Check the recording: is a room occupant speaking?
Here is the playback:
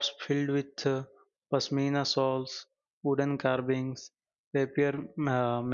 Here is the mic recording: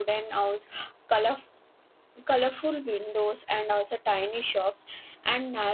Yes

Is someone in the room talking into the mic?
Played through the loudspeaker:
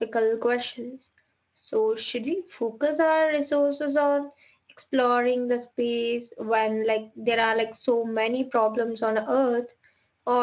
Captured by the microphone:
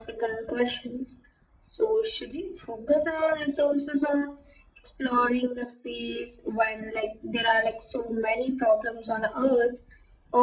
No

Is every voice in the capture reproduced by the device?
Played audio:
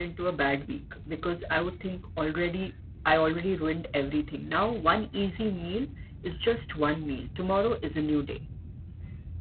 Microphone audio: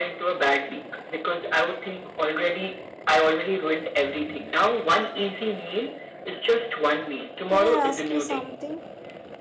No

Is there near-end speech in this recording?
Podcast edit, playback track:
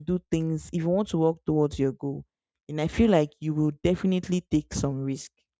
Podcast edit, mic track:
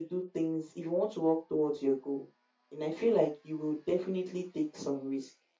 No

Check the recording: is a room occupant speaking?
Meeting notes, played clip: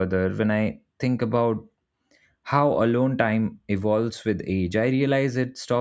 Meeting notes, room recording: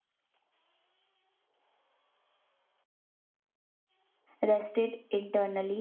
Yes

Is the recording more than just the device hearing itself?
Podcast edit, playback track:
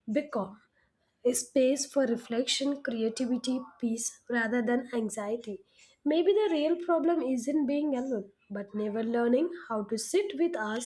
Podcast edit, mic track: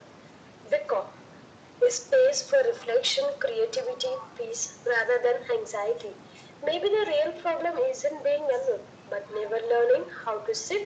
No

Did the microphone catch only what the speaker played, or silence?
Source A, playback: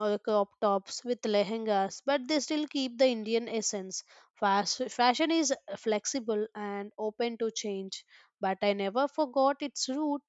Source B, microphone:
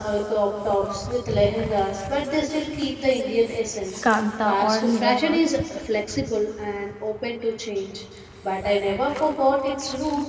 No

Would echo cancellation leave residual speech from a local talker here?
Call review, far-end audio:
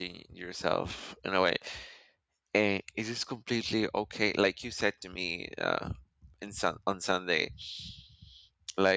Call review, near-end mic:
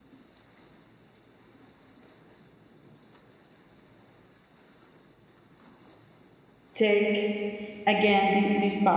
Yes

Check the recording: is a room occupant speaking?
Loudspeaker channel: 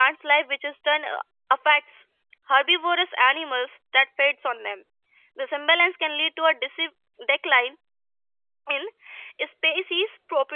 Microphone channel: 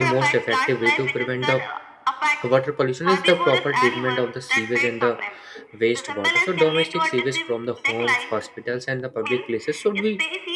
Yes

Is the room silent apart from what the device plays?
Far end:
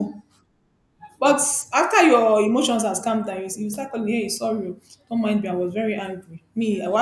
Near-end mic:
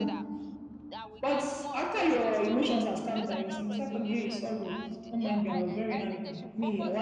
No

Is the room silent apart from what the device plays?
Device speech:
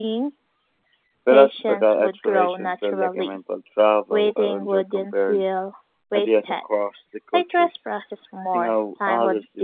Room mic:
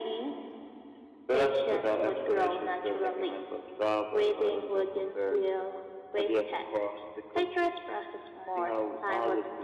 Yes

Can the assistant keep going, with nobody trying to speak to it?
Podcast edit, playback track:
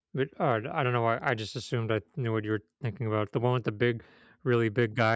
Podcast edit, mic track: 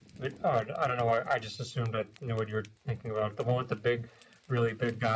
Yes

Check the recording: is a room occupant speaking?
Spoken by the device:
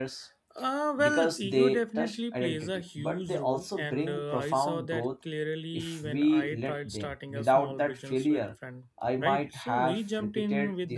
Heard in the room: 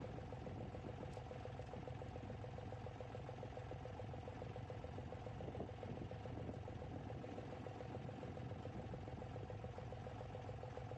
No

